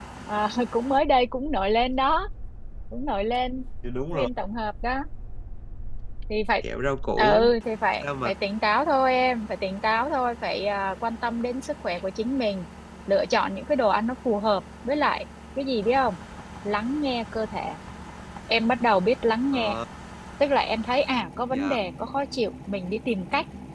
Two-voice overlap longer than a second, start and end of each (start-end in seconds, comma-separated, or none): none